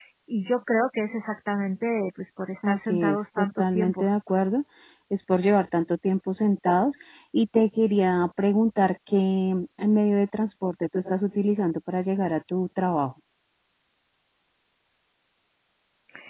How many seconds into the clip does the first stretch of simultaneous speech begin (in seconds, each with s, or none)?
2.6 s